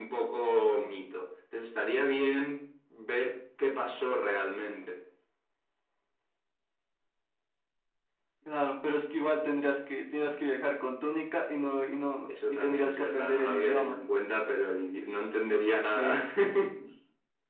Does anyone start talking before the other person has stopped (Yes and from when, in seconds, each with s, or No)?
Yes, from 12.3 s